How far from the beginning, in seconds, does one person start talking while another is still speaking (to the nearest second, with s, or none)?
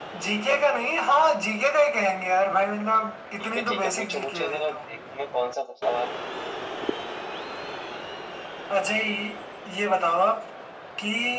3 s